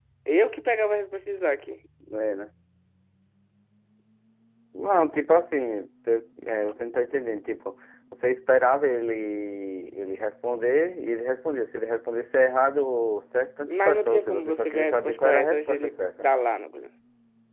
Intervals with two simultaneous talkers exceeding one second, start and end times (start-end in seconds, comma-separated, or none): 13.7-16.3